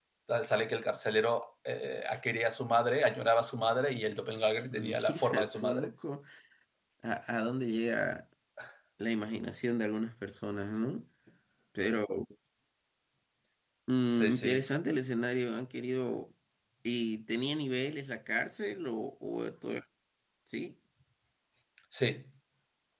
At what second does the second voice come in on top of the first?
4.7 s

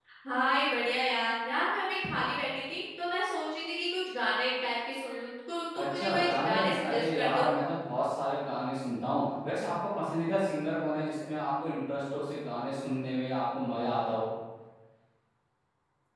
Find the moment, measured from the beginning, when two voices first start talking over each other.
5.8 s

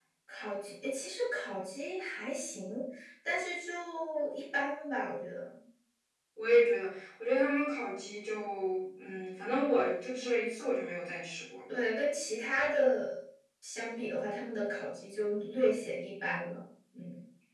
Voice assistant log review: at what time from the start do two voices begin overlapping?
none

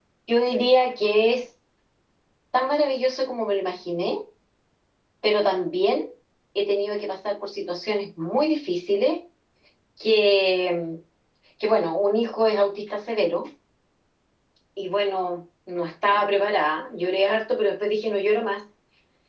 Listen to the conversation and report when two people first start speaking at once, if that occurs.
none

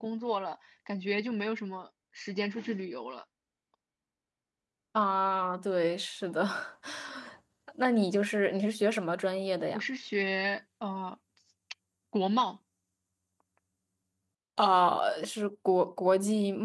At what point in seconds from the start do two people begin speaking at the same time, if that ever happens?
none

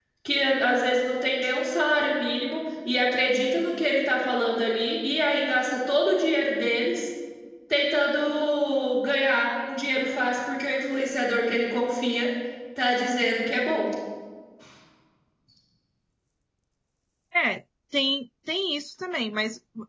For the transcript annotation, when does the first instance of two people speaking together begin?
none

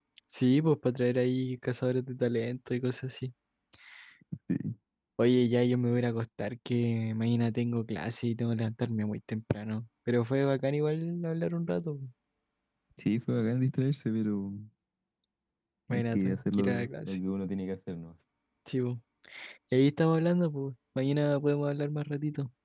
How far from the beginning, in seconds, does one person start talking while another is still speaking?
15.9 s

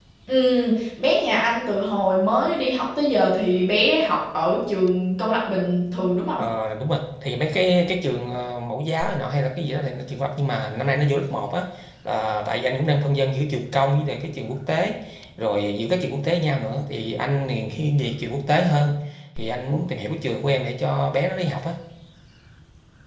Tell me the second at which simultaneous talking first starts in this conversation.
none

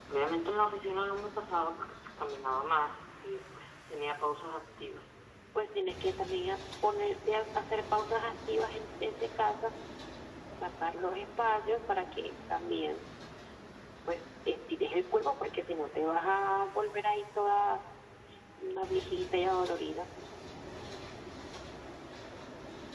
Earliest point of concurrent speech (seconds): none

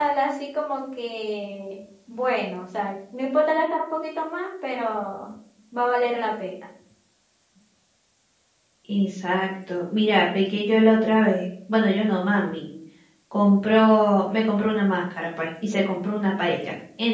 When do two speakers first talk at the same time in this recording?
none

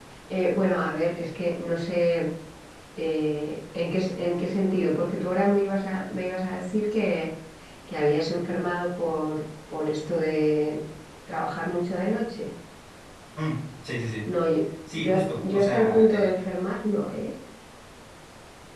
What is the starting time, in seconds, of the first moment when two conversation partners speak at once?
15.0 s

